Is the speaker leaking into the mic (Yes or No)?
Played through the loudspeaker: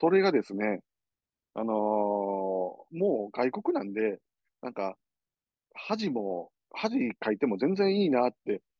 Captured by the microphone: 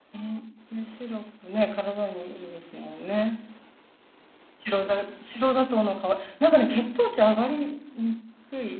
No